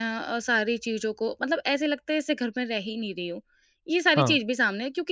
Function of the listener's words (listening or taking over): listening